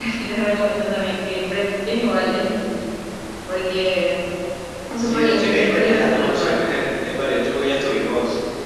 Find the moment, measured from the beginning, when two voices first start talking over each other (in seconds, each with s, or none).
5.0 s